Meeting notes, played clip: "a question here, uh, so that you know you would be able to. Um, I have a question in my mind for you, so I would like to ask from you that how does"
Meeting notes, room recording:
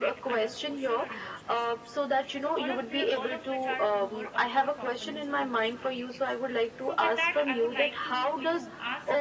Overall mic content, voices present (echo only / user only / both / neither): both